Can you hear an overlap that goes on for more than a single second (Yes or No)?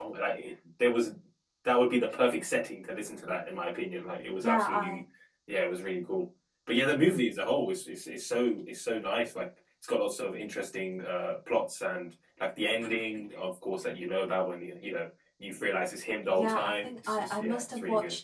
Yes